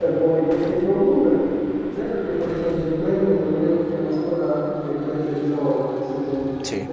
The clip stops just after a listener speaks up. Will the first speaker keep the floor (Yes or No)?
Yes